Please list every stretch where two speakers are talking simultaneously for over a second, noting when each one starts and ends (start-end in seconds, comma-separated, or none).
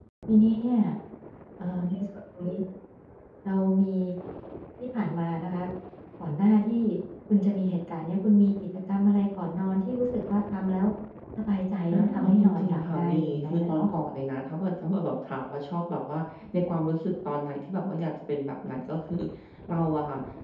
11.9-13.9